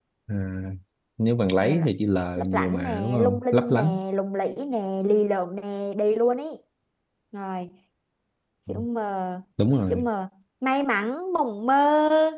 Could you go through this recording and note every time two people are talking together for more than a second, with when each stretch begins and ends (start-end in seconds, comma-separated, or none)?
2.4-4.0